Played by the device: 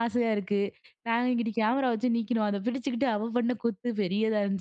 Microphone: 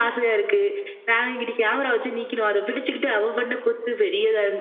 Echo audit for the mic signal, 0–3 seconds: echo only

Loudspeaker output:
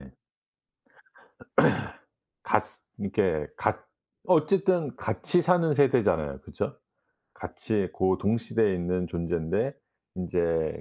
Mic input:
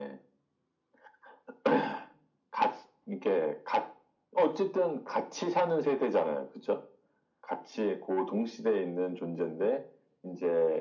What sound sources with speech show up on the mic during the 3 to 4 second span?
echo only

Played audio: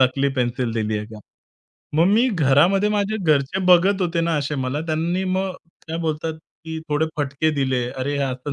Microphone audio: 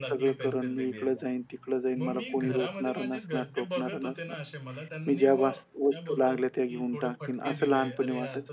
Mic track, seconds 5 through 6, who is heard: both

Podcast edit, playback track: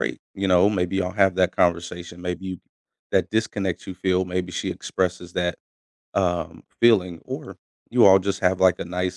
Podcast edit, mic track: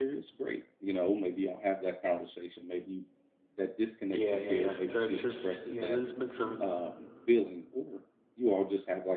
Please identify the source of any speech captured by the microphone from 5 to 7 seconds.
both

